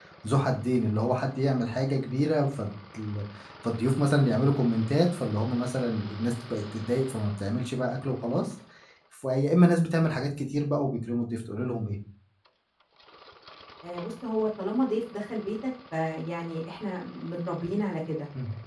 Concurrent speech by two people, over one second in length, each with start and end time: none

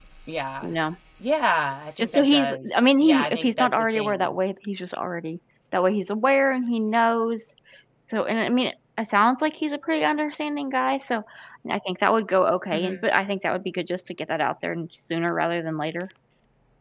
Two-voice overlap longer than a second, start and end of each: 2.0-4.4

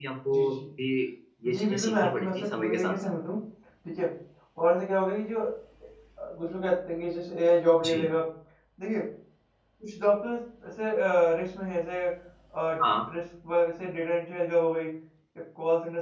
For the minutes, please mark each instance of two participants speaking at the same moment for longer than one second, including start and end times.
1.5-2.9

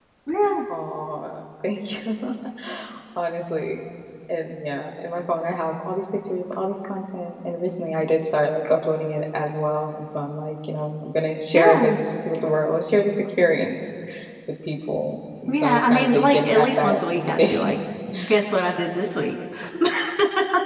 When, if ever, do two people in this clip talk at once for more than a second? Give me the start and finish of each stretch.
15.5-17.8

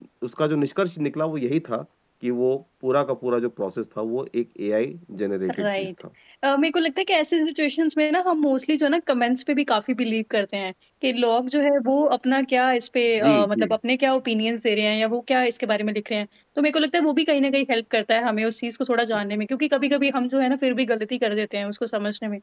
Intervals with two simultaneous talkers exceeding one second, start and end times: none

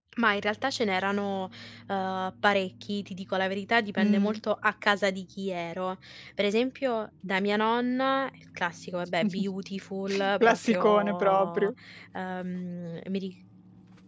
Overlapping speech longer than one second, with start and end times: 10.4-11.7

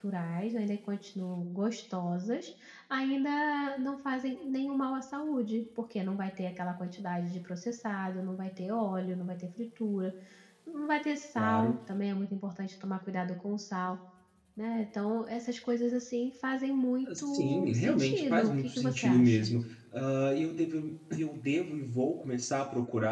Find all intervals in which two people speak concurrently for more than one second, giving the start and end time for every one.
17.3-19.5

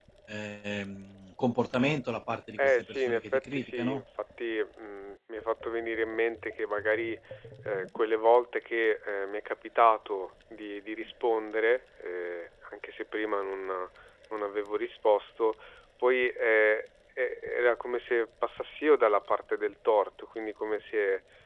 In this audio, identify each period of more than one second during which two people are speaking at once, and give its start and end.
2.6-4.0

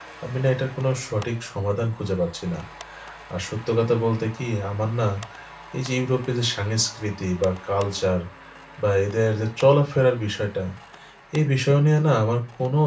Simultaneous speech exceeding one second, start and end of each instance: none

